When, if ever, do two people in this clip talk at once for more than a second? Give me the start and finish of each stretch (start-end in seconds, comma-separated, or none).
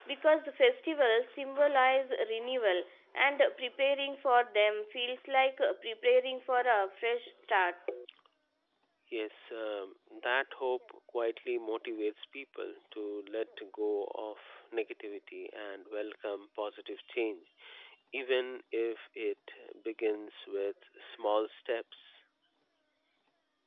none